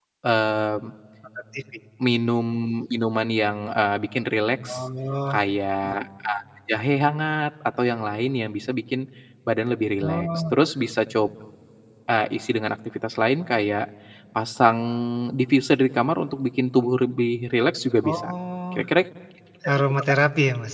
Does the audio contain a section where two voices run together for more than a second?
No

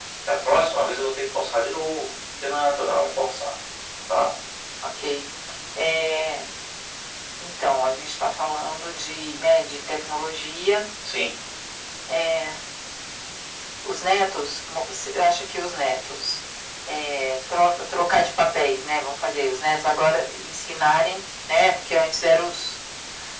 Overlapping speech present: No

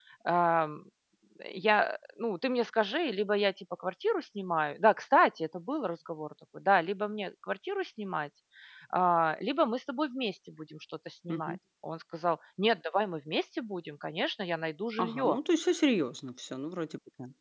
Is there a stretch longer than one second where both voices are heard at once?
No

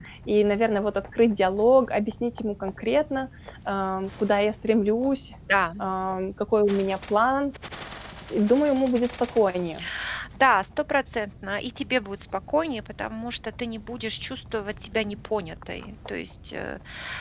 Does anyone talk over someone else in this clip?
No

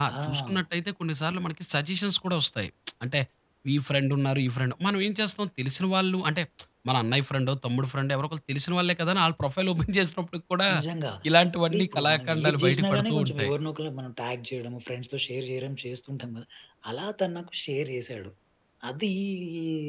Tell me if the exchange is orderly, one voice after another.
No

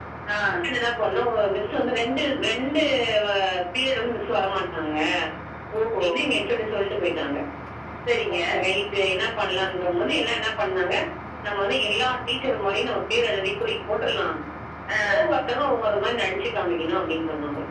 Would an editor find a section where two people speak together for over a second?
No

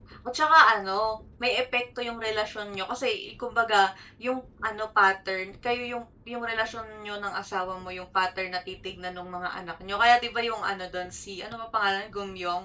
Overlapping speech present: No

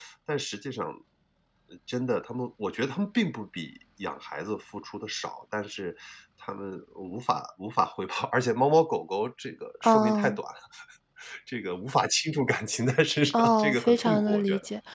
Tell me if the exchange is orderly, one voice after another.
No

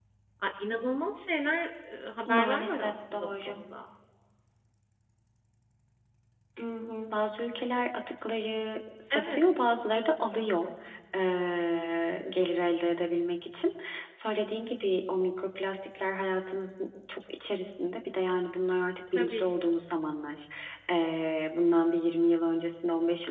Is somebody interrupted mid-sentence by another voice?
Yes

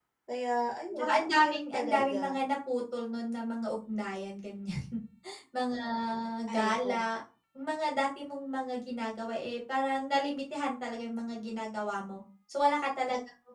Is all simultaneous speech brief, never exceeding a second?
No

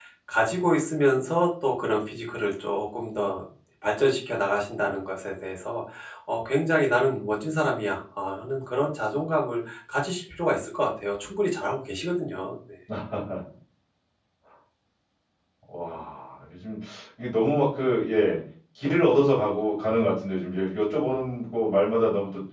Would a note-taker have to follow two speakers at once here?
No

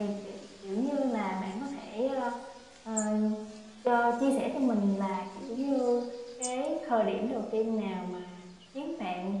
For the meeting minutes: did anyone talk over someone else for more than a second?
No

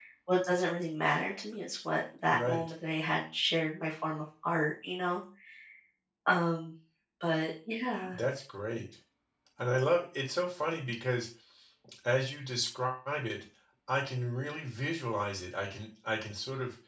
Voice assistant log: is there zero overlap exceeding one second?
Yes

